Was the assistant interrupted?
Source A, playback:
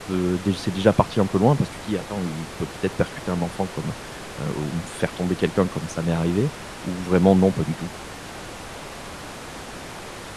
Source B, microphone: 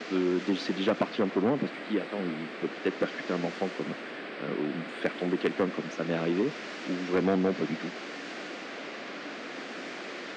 No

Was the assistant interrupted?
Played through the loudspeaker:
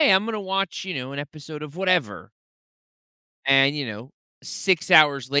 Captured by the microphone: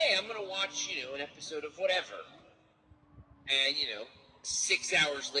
No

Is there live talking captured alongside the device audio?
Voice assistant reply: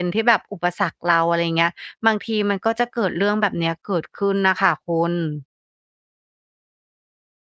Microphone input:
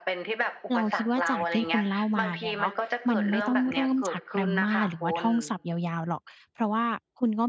Yes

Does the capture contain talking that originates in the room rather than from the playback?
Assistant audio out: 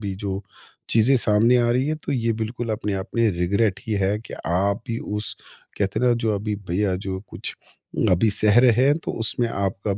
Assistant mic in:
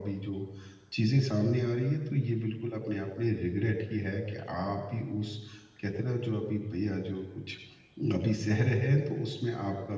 No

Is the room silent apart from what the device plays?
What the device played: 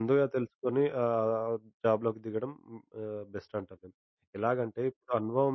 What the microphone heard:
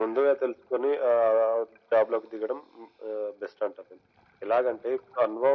Yes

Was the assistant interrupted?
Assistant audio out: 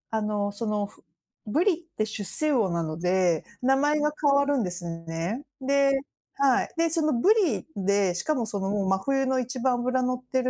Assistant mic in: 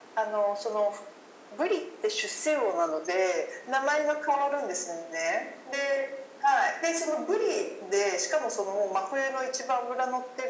No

